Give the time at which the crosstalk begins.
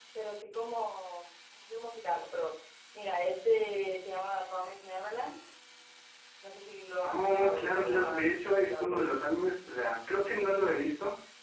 7.0 s

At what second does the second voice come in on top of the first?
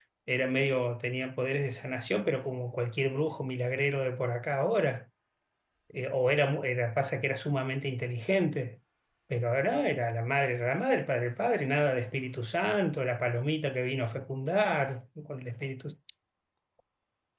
none

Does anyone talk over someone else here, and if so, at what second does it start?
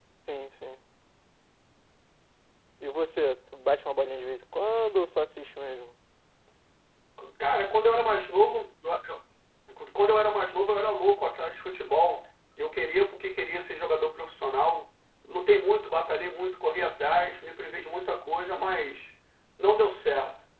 none

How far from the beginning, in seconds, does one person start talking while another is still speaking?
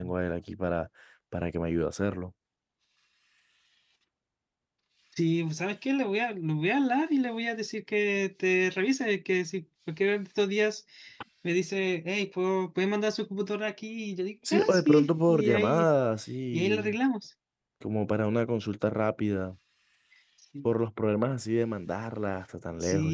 14.5 s

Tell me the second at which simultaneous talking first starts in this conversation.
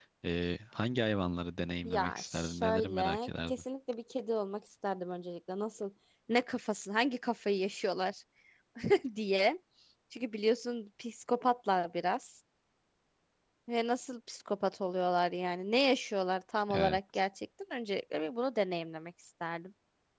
1.8 s

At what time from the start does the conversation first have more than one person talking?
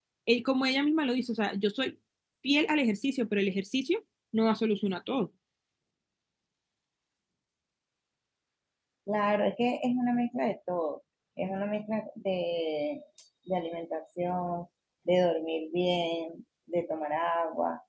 none

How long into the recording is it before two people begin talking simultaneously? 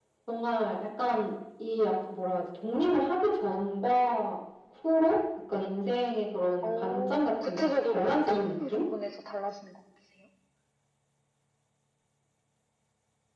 6.6 s

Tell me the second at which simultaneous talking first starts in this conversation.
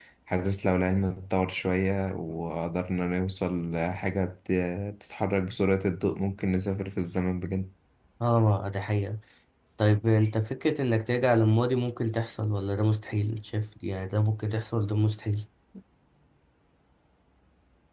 none

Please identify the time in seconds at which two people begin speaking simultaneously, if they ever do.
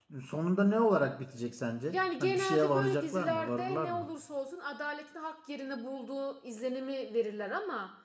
1.9 s

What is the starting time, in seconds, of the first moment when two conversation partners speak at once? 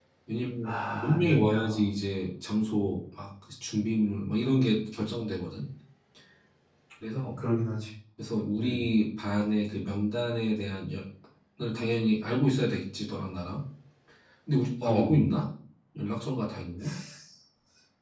0.6 s

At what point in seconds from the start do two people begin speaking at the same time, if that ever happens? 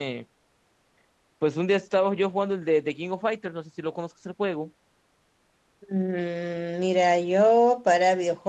none

